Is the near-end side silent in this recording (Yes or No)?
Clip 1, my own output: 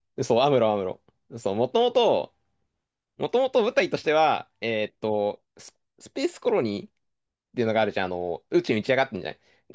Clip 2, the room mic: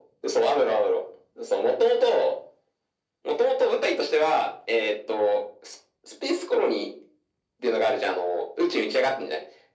Yes